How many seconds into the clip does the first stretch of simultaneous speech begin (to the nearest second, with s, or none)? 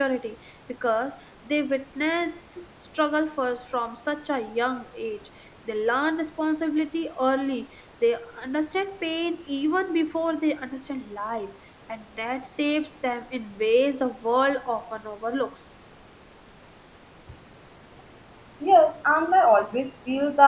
none